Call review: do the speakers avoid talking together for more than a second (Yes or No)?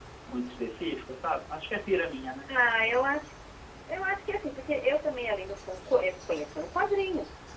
Yes